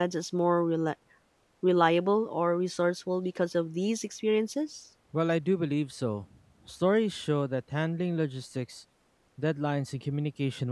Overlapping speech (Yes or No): No